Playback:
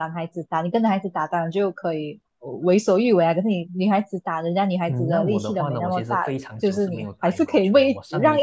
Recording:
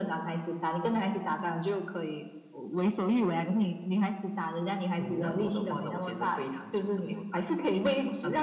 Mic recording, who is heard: echo only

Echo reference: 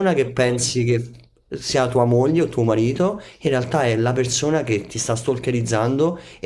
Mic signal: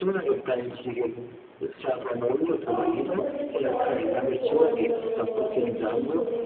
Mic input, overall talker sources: both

